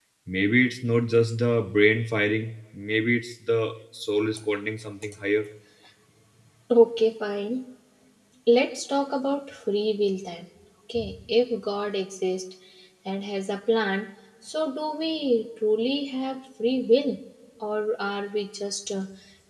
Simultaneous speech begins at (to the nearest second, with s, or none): none